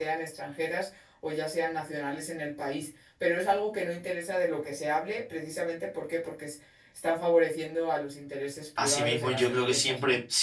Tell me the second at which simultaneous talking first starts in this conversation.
9 s

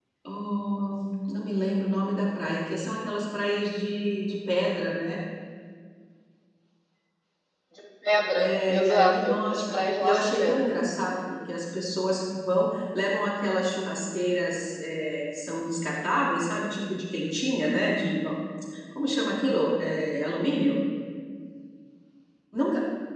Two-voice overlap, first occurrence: 8 s

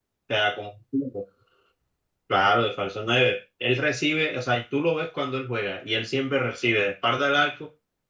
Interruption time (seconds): none

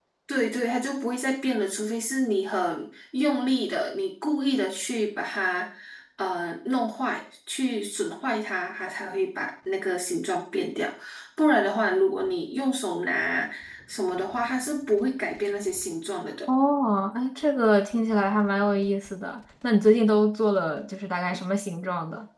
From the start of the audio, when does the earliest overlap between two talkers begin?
none

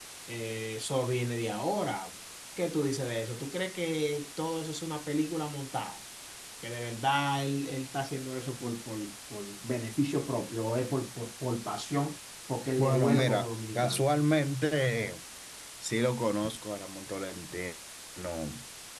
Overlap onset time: 13 s

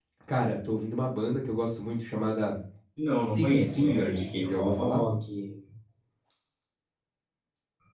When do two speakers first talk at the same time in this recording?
3 s

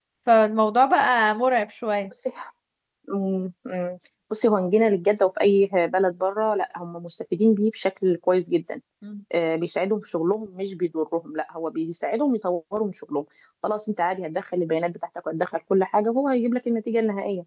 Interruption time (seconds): none

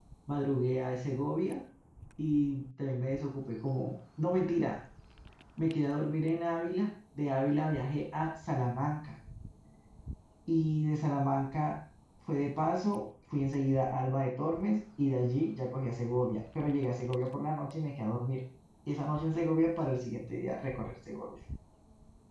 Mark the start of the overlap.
none

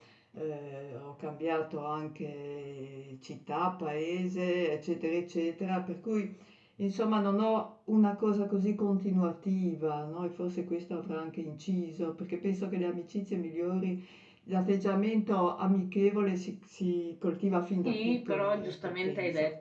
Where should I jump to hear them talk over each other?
18 s

